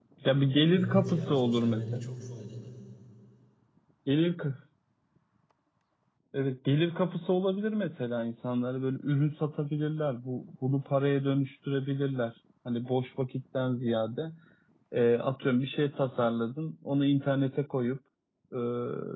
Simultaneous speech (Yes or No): Yes